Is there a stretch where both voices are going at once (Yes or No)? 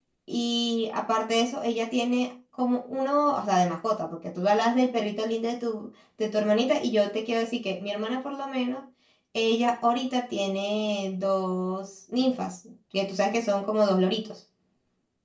No